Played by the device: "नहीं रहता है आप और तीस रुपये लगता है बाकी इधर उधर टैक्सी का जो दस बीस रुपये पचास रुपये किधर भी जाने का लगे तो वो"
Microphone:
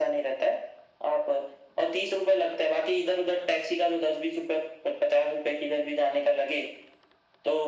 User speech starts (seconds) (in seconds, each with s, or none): none